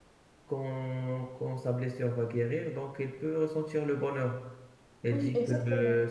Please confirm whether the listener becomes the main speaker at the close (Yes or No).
No